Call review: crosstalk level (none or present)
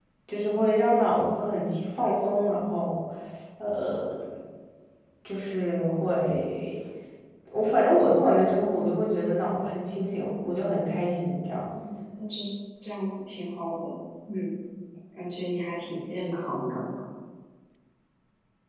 none